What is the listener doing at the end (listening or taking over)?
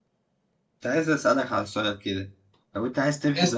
listening